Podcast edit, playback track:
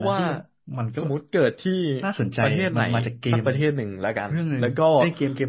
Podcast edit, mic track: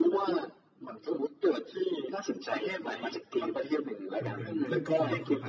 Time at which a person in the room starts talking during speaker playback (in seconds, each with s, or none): 4.2 s